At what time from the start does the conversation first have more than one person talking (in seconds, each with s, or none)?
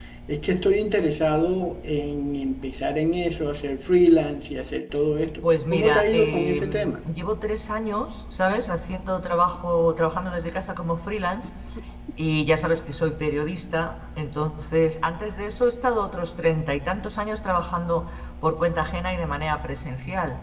5.4 s